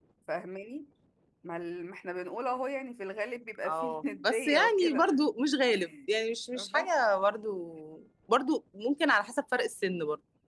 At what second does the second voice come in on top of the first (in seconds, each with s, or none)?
3.6 s